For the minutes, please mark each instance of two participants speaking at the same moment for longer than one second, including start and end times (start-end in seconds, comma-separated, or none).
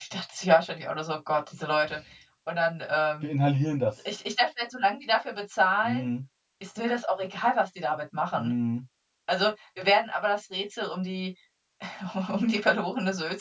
none